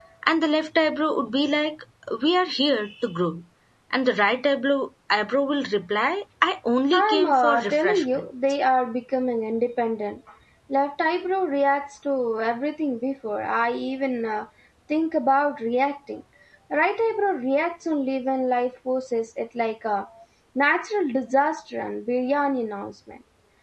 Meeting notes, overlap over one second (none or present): present